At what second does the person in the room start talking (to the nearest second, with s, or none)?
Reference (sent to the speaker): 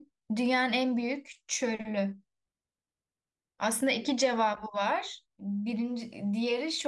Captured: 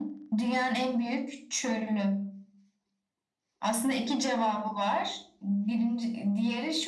none